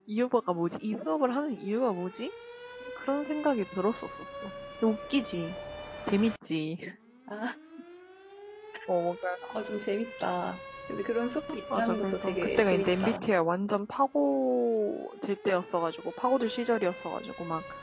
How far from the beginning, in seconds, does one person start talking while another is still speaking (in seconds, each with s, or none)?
11.7 s